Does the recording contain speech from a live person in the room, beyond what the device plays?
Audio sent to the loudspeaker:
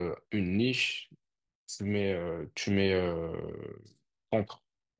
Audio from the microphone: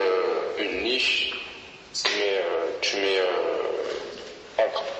No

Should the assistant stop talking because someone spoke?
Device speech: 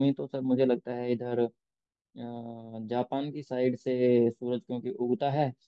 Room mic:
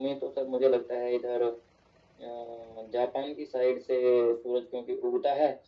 No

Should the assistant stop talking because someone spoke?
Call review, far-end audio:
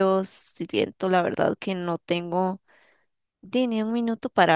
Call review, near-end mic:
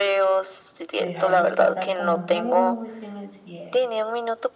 Yes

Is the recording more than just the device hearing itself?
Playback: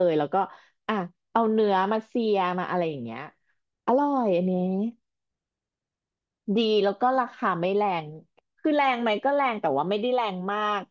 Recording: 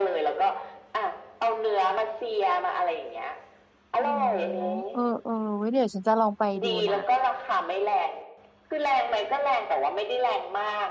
Yes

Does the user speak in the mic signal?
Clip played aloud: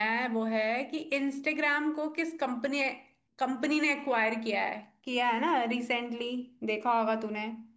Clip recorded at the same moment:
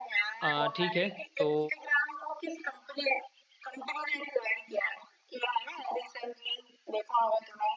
Yes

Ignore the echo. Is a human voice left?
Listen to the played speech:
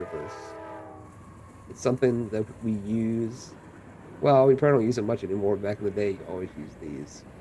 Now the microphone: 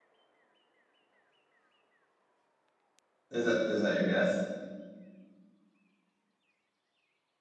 Yes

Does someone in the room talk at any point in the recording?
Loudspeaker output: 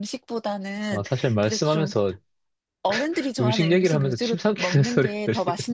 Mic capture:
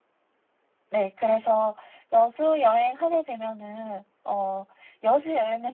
Yes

